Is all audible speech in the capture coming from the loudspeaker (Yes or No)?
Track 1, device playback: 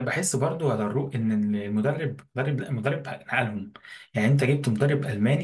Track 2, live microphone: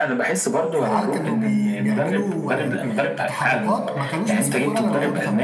No